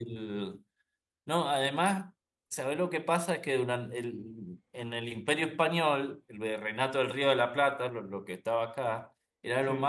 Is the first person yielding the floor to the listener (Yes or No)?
No